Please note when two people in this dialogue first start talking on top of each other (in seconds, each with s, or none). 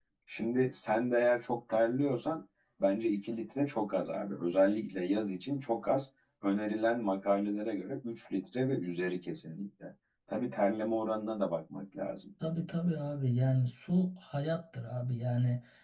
none